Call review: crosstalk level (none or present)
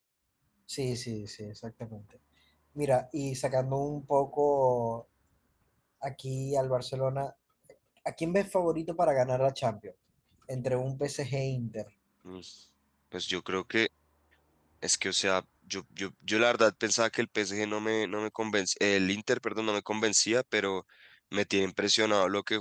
none